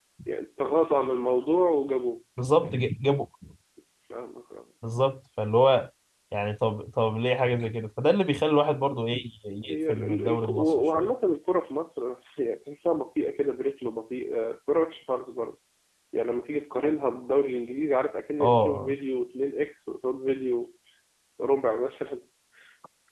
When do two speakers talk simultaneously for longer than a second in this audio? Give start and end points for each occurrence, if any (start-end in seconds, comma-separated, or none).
9.7-11.1